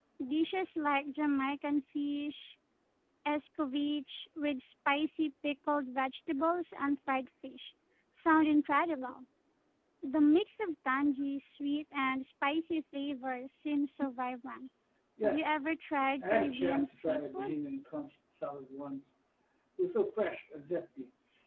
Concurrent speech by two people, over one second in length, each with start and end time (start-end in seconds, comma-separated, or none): 16.2-17.6